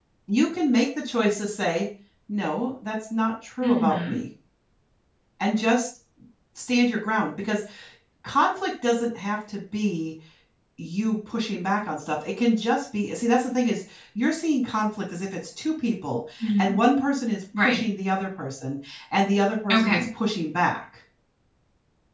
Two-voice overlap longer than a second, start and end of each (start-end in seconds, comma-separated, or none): none